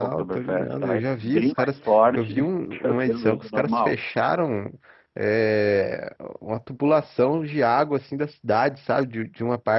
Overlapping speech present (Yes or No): Yes